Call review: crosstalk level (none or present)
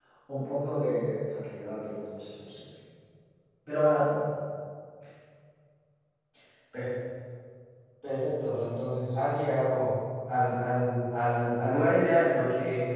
none